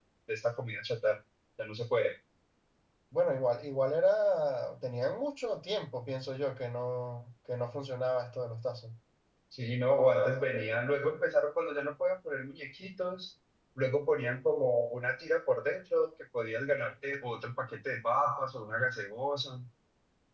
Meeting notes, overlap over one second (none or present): none